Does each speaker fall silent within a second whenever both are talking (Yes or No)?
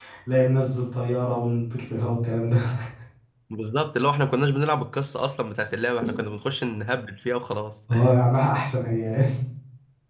Yes